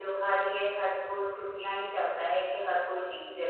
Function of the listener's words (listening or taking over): taking over